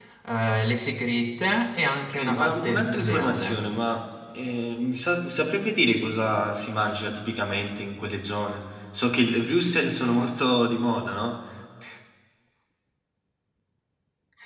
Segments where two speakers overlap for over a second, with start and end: 2.1-3.7

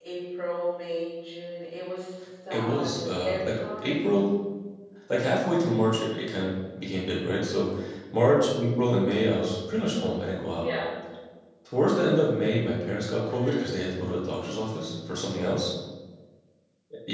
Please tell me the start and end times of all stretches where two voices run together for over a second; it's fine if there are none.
2.5-4.1

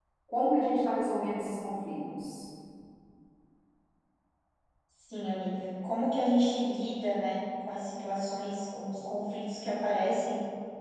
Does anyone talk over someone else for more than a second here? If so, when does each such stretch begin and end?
none

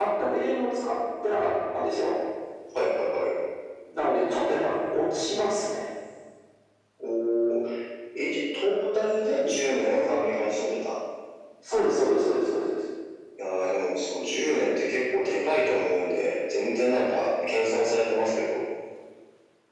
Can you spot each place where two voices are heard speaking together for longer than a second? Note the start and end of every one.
none

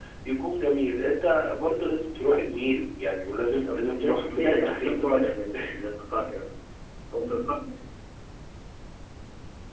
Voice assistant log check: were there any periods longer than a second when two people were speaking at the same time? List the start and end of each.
3.6-5.3

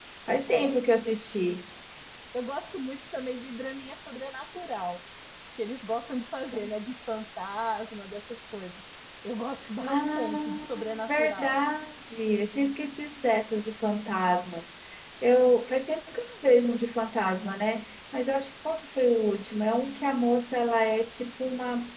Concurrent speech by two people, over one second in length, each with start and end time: 9.8-11.6

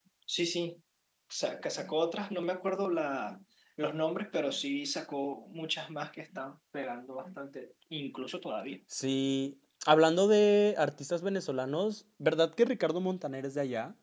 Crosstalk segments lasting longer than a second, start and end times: none

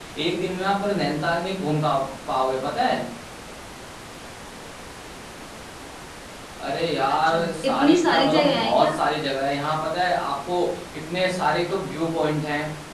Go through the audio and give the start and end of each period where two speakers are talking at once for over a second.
7.3-8.9

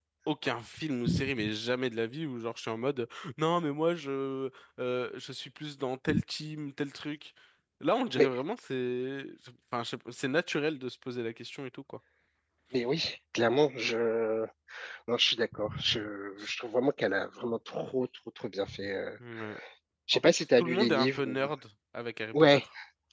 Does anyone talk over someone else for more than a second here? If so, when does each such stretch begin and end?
20.1-21.4

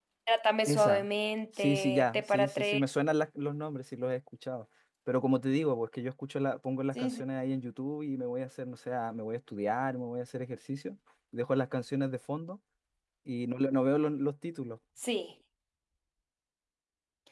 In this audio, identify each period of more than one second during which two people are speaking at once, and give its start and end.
1.6-2.8

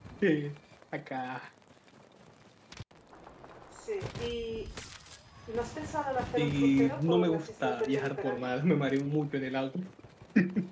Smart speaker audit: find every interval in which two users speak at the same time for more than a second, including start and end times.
6.4-8.5

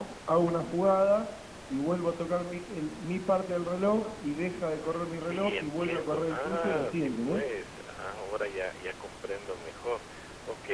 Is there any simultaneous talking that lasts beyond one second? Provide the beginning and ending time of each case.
5.1-7.4

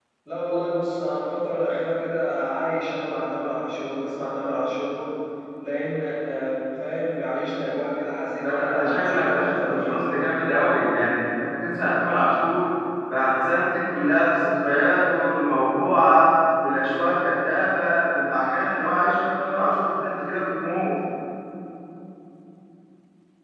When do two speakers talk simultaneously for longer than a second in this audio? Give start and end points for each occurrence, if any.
8.4-10.1

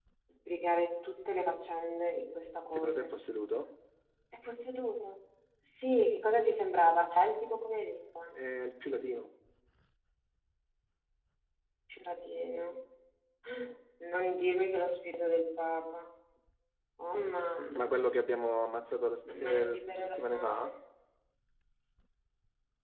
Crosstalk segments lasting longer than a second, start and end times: 19.4-20.7

